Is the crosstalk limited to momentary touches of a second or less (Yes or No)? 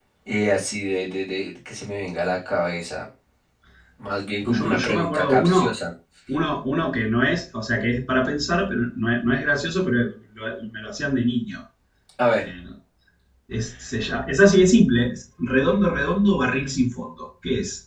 No